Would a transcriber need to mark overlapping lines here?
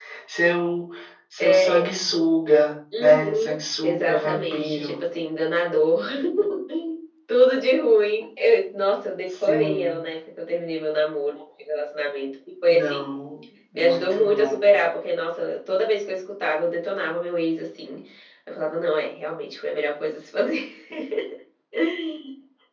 Yes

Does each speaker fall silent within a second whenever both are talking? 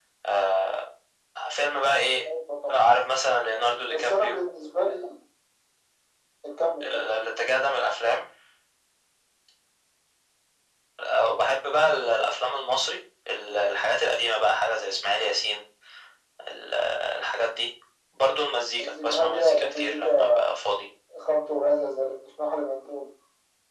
No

